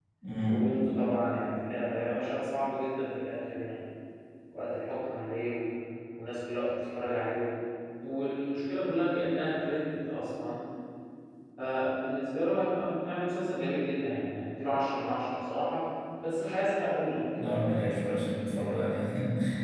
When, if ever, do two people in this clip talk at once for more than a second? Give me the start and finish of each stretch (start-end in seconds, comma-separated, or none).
none